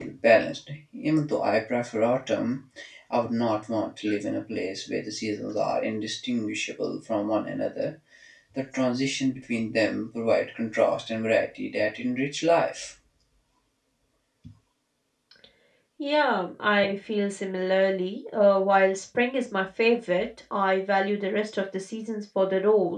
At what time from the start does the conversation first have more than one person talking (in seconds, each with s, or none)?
none